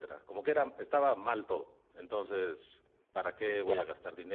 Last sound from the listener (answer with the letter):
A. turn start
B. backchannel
B